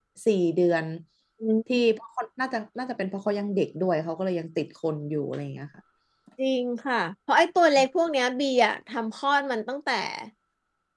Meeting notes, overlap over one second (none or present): none